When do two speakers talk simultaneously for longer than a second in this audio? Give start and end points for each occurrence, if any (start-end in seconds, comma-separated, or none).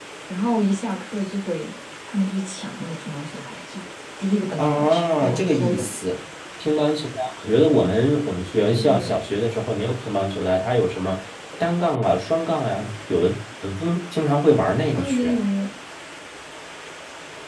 4.6-5.9